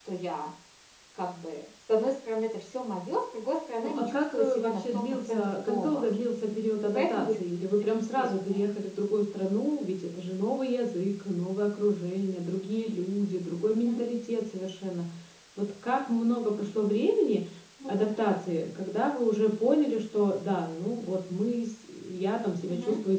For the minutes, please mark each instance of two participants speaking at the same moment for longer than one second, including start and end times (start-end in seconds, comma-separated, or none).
3.8-6.1